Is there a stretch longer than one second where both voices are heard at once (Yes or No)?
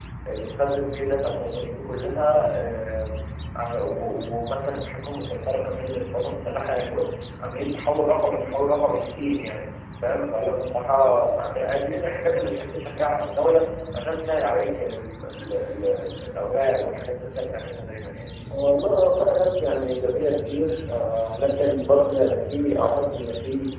No